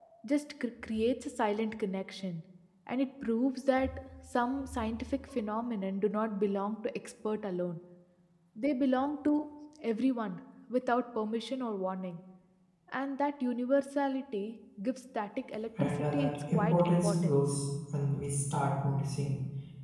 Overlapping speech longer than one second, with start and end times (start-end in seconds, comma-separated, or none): 15.8-17.4